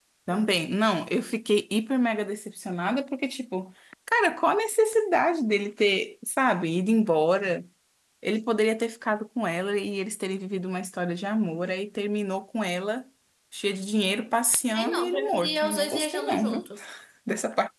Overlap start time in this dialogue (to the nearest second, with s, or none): 15 s